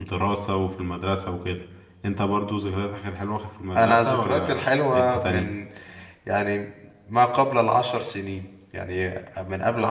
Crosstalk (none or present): present